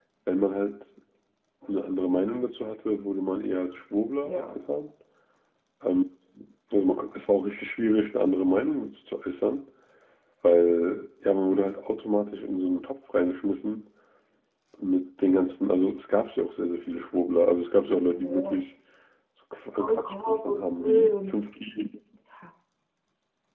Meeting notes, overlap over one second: present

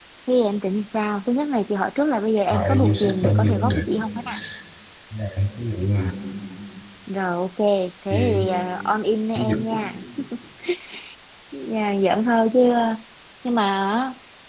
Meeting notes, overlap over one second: present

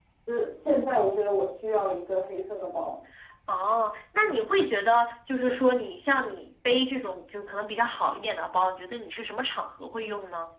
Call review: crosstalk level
none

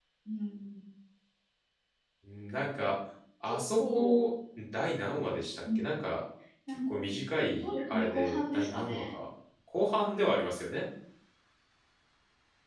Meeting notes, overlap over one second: present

